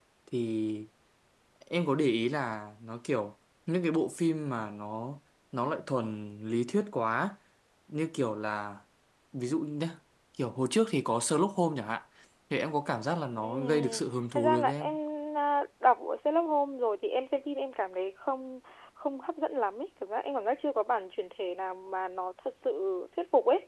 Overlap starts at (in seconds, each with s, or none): 13.4 s